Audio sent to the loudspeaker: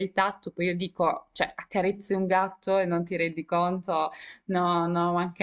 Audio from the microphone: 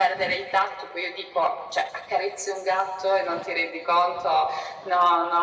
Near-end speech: none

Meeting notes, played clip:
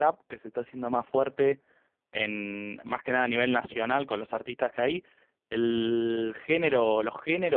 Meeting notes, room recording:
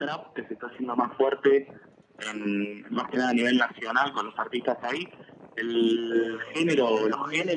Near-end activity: present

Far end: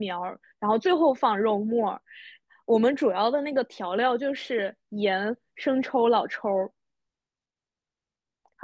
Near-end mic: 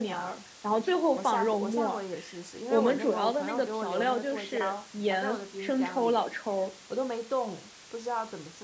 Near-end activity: present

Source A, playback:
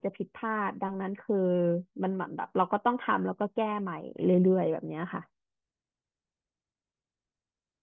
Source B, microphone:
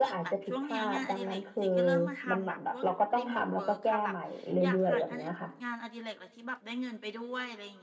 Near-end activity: present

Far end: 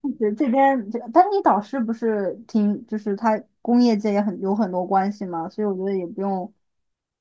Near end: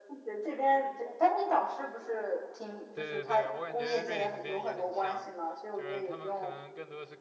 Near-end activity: present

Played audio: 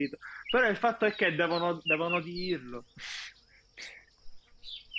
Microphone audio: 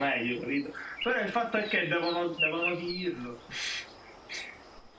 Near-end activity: none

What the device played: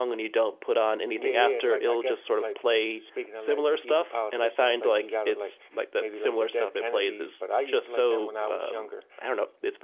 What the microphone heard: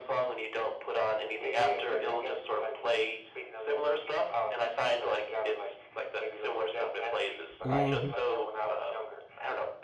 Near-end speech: present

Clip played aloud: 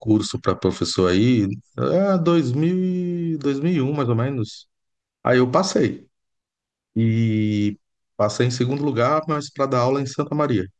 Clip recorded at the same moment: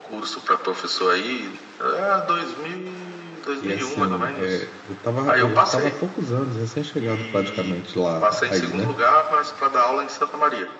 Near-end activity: present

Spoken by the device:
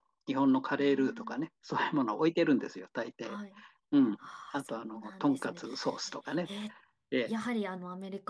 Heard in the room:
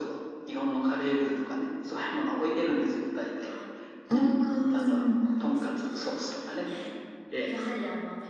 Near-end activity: present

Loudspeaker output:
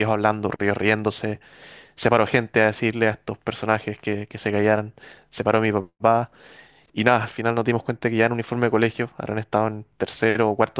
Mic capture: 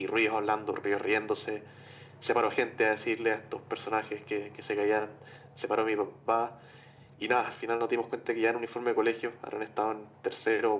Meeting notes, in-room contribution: none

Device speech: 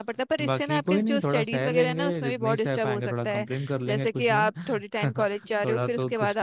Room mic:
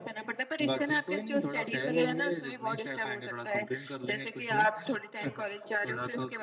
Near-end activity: none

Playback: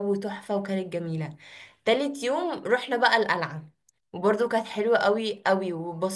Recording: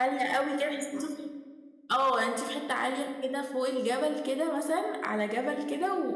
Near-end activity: present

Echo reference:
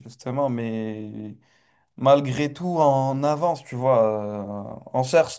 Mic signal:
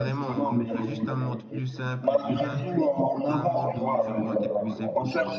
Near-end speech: present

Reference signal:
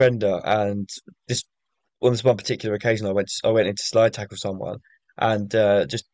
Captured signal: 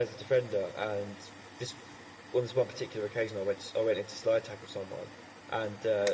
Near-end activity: none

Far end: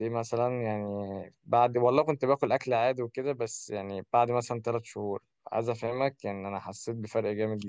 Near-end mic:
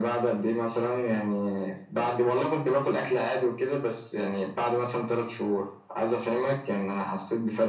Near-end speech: none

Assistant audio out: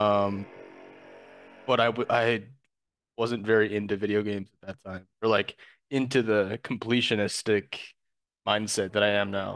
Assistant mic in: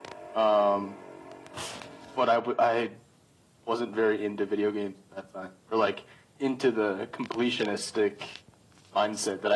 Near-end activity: none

